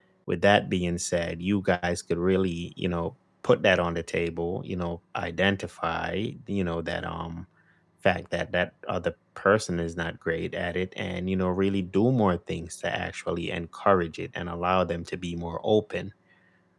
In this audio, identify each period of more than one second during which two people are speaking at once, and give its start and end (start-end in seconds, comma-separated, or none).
none